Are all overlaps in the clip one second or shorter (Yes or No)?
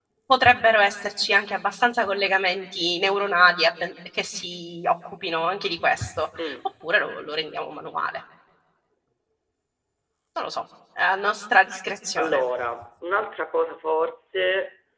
Yes